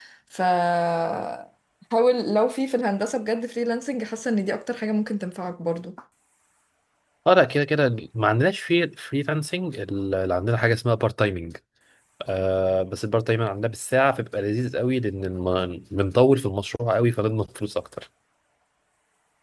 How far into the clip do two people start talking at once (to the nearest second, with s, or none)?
none